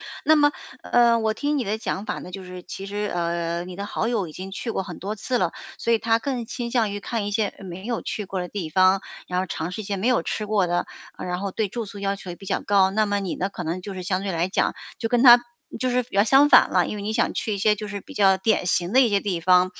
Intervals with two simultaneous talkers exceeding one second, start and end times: none

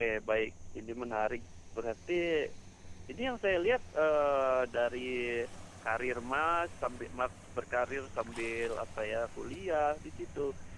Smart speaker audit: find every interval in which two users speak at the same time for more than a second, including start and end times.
none

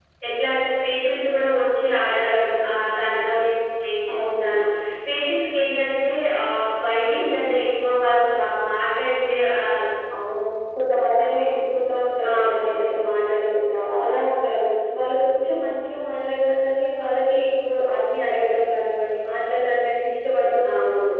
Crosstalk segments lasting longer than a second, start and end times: none

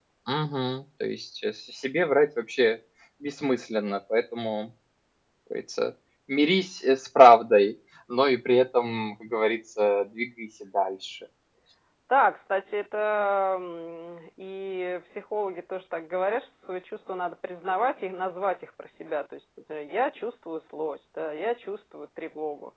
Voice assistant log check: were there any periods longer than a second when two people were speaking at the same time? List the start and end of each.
none

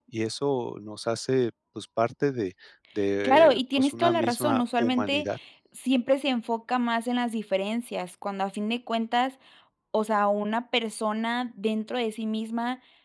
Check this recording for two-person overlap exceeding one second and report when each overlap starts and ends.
3.2-5.2

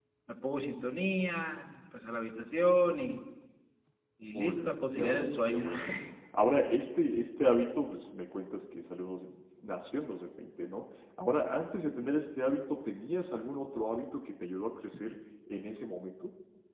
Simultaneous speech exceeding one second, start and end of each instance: 4.3-5.7

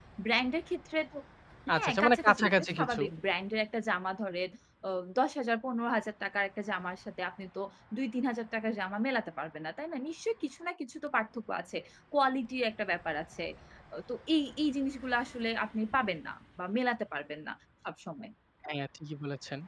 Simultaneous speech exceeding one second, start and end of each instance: 1.7-3.0

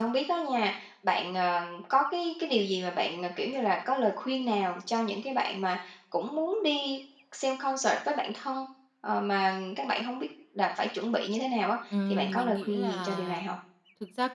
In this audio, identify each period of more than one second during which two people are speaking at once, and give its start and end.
12.1-13.4

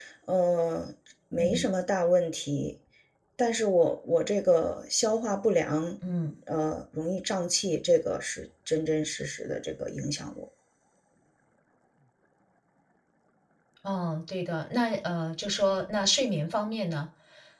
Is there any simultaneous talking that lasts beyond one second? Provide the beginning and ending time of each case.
none

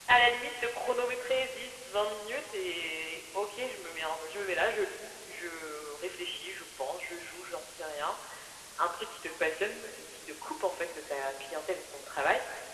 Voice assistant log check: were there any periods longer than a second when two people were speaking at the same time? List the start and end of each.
none

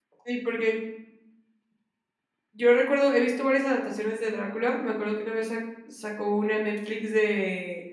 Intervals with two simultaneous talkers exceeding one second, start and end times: none

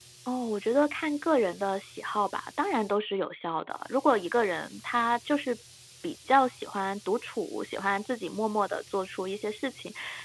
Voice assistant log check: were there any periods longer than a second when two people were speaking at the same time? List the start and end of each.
none

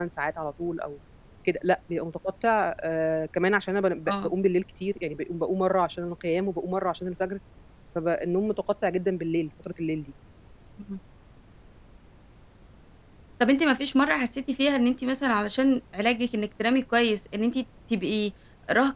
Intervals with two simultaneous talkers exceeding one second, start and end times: none

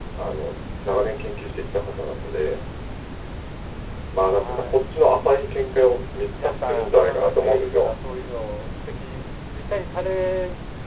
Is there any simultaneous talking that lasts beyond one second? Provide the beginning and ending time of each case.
6.3-7.9

